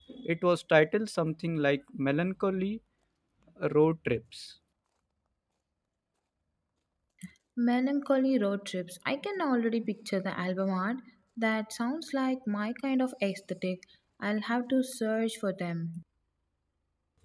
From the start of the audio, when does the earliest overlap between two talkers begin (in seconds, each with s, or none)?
none